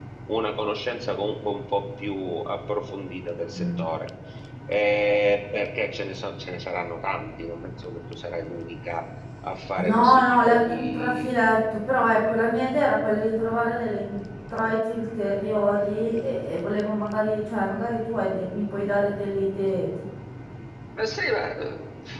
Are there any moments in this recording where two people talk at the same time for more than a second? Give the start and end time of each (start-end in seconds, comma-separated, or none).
9.8-11.3